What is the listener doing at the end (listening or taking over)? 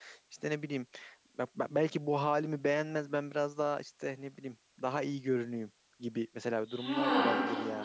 taking over